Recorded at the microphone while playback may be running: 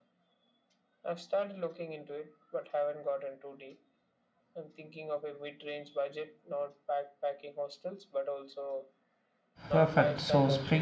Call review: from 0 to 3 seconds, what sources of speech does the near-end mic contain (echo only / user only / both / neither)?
echo only